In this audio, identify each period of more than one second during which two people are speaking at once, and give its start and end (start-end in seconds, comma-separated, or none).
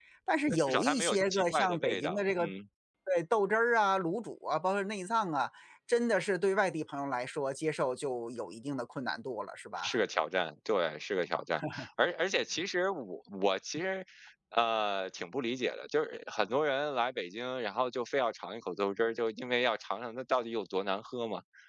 0.6-2.5